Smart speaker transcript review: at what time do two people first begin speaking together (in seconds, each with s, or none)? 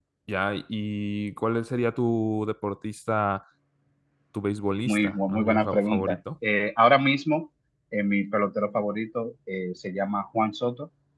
4.8 s